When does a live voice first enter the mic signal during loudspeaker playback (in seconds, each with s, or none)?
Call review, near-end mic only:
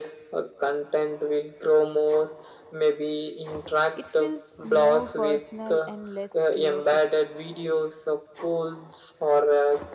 3.9 s